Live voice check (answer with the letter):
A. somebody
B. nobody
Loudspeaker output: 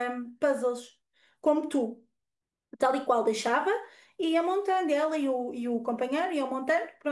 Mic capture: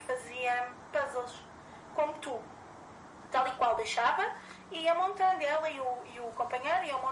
B